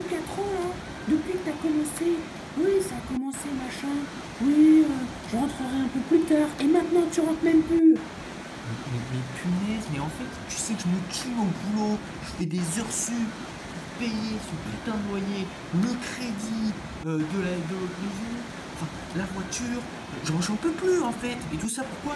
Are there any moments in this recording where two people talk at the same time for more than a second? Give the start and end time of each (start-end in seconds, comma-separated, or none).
none